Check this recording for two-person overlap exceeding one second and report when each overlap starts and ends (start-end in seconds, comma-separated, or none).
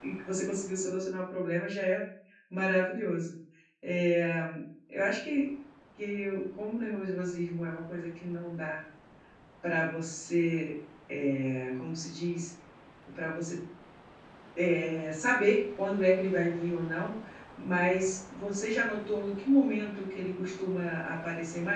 none